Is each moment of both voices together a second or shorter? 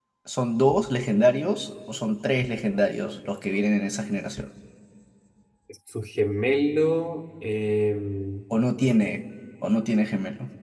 Yes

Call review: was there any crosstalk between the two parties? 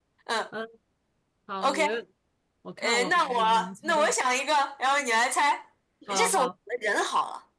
Yes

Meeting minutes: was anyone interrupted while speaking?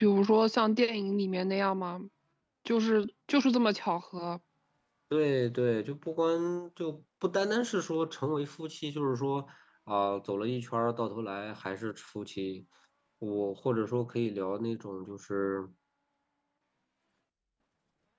No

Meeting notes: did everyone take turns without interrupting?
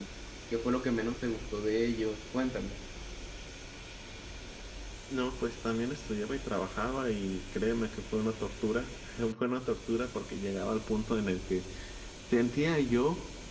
Yes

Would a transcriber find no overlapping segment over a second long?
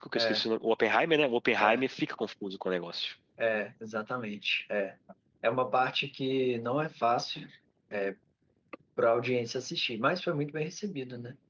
Yes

